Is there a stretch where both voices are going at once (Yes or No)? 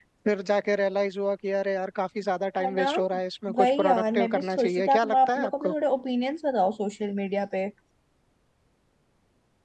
Yes